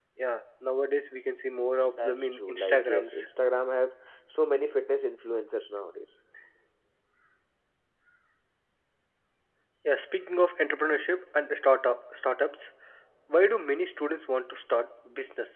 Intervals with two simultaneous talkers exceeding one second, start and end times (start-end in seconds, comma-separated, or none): 1.8-3.2